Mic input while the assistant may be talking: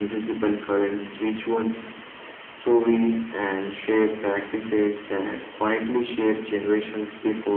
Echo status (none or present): present